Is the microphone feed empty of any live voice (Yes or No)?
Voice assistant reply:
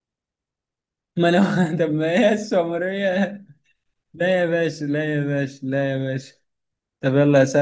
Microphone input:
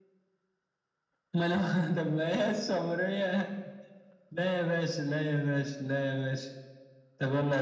Yes